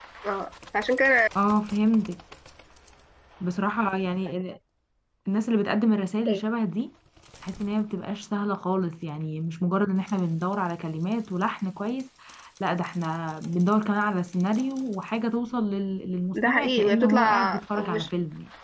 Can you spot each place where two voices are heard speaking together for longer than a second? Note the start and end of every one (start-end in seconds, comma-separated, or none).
16.3-18.1